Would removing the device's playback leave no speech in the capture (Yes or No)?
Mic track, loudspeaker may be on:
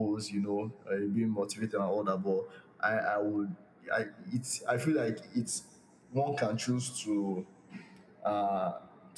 Yes